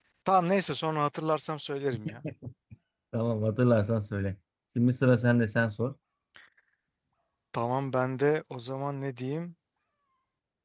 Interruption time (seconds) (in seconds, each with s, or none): none